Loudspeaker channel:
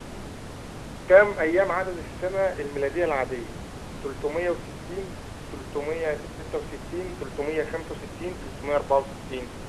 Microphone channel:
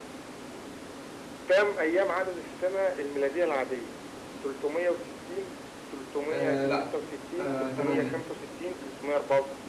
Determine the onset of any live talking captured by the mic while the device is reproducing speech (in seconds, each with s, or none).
6.3 s